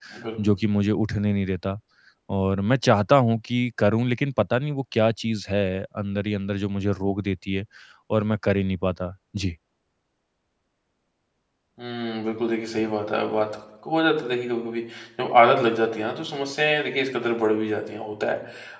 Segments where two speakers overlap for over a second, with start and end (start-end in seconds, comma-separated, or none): none